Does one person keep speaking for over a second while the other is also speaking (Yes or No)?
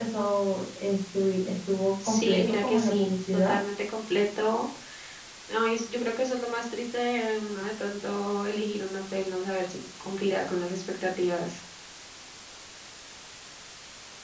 Yes